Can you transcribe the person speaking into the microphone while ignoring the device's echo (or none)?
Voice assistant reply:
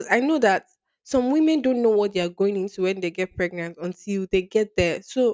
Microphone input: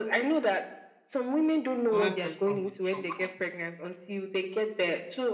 Comment section will choke.